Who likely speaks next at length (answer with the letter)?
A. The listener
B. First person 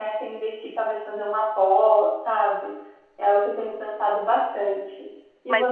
A